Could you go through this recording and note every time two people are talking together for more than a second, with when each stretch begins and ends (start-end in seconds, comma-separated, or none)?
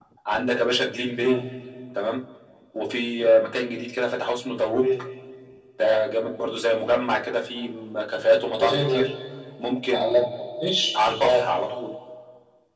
none